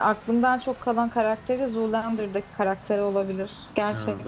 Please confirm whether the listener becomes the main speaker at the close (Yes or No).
Yes